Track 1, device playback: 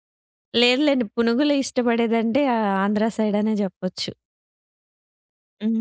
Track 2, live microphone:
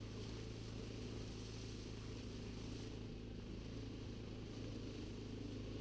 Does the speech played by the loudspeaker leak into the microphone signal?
No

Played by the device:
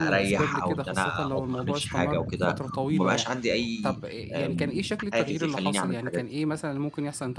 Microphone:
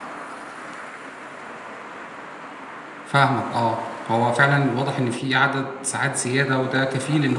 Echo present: No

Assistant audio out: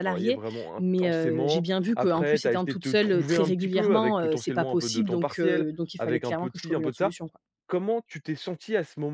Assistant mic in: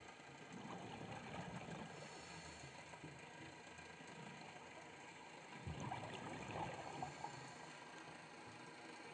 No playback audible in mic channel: Yes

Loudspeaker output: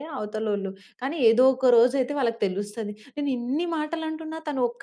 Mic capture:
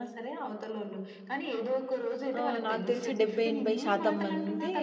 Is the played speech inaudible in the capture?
No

